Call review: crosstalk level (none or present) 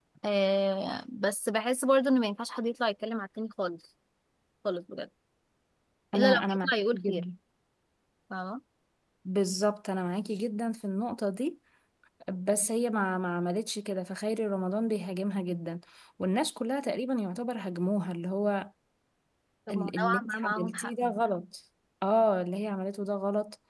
present